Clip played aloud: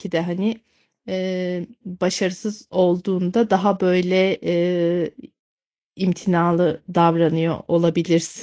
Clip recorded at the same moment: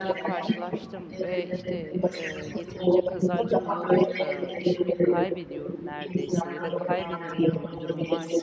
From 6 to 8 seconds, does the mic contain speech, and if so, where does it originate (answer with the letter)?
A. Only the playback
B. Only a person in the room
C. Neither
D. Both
D